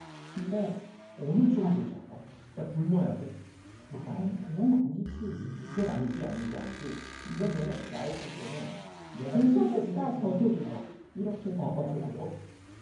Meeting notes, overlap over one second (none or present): present